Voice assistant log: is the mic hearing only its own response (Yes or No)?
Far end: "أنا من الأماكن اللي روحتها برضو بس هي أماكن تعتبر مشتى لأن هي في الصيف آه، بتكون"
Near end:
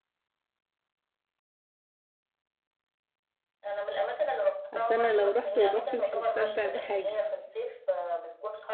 No